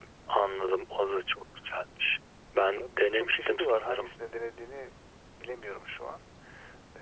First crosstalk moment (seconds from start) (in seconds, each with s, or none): 2.8 s